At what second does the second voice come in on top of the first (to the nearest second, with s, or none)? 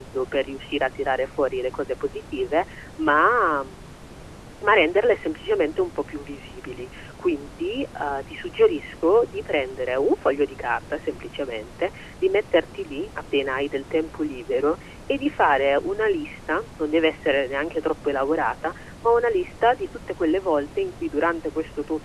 none